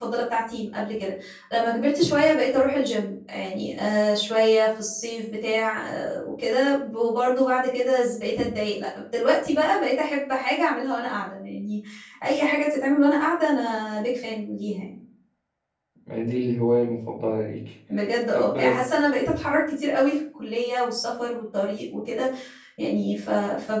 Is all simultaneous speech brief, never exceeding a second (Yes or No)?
Yes